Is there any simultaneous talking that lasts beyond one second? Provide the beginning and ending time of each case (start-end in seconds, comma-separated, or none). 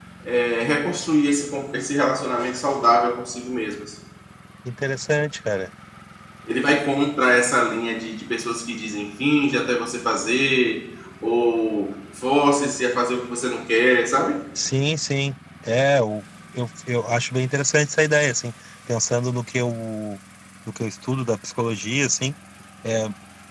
none